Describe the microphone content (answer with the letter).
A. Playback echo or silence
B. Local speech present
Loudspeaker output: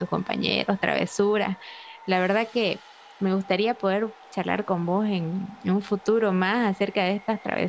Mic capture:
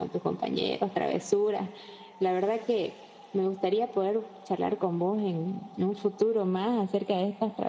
A